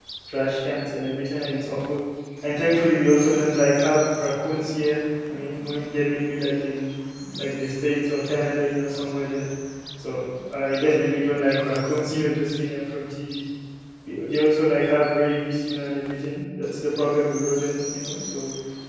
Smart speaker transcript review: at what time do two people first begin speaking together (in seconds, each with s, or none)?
none